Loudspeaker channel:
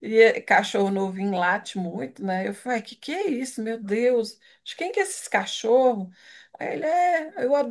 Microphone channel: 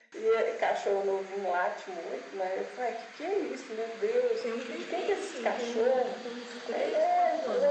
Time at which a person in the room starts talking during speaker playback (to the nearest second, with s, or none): 4 s